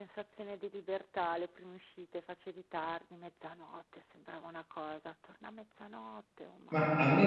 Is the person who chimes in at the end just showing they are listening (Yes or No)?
No